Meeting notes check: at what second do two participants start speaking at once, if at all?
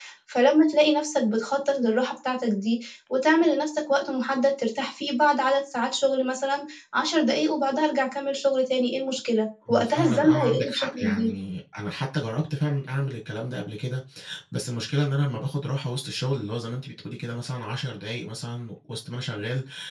9.7 s

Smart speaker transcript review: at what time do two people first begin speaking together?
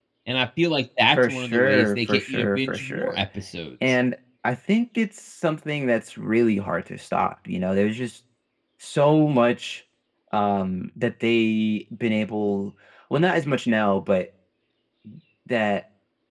1.1 s

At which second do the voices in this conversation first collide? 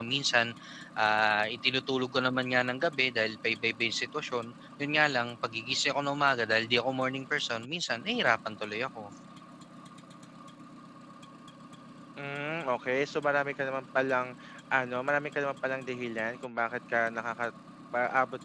none

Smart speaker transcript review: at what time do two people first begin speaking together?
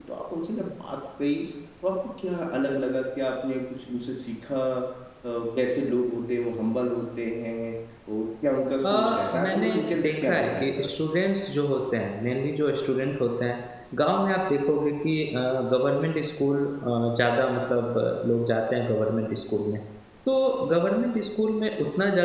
8.8 s

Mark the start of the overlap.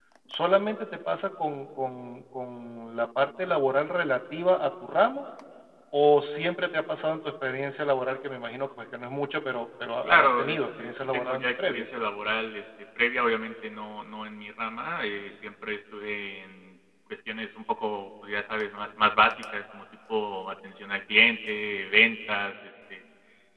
10.0 s

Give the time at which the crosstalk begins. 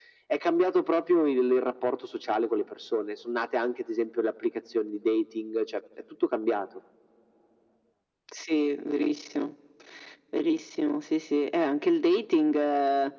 none

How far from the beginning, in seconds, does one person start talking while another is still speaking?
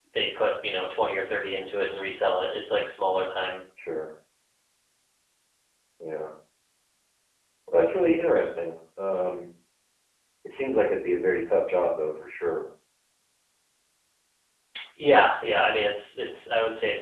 none

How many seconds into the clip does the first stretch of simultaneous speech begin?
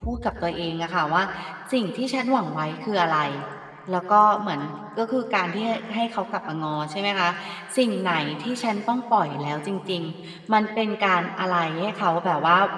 none

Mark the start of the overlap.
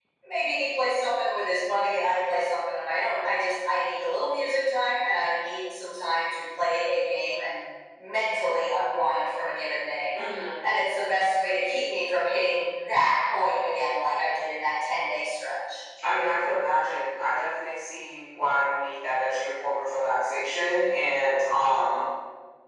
none

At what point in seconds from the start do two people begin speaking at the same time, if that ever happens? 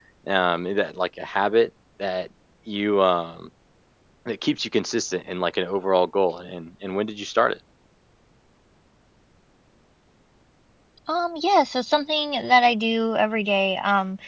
none

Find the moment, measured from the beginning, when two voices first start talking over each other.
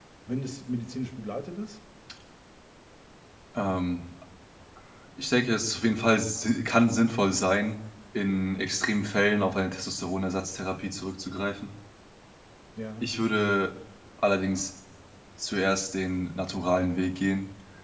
none

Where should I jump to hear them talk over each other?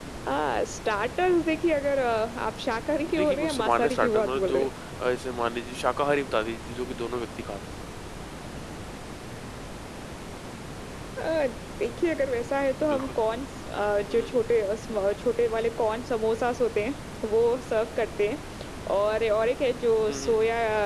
3.1 s

